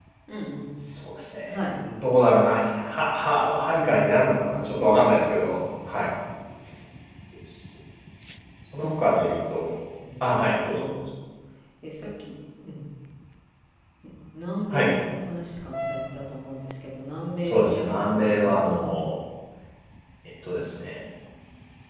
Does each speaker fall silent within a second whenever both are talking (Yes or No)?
No